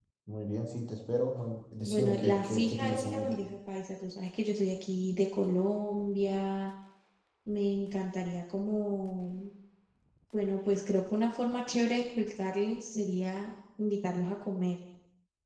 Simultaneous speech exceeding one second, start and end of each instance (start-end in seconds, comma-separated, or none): 1.8-3.3